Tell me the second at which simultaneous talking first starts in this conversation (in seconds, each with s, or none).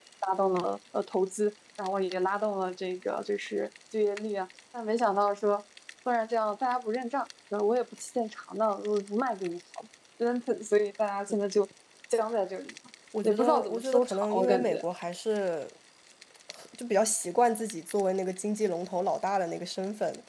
13.1 s